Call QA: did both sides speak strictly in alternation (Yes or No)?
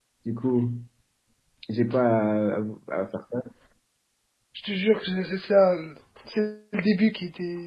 Yes